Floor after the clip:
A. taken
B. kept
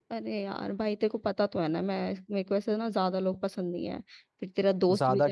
B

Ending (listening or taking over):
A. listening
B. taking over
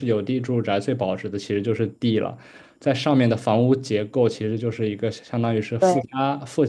A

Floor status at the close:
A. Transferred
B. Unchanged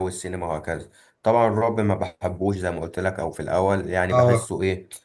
B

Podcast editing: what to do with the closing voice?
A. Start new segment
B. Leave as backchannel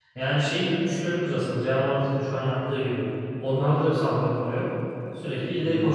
B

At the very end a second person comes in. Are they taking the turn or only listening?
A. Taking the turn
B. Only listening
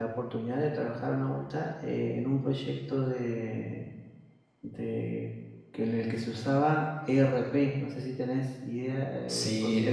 A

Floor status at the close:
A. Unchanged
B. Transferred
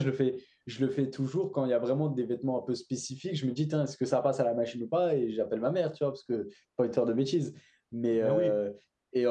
A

